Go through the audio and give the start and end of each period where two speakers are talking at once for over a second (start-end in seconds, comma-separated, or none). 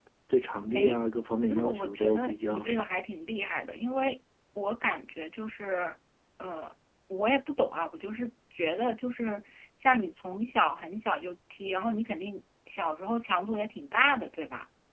1.5-2.8